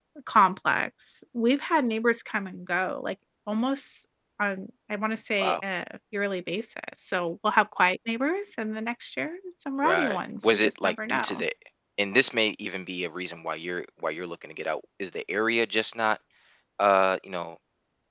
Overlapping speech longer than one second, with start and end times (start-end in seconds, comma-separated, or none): 9.8-11.4